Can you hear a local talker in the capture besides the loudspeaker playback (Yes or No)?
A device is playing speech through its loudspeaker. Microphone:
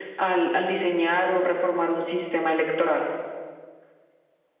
No